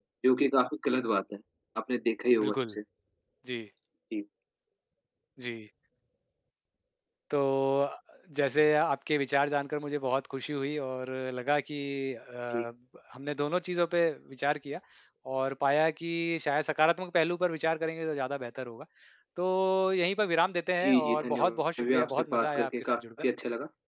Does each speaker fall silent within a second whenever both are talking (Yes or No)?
No